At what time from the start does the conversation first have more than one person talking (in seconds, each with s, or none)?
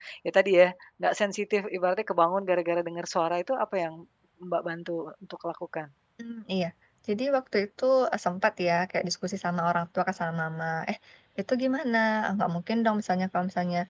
none